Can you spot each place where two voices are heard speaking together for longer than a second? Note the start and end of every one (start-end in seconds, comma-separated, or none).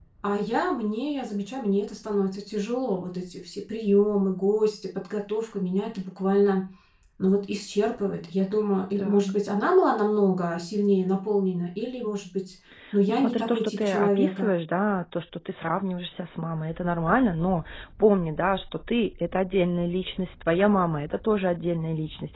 13.1-14.5